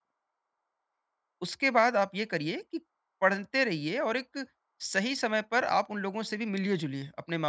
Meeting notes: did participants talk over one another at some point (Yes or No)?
No